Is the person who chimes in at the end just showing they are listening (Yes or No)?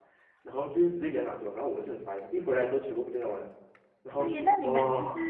No